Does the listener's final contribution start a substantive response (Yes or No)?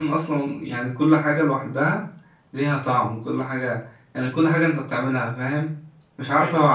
No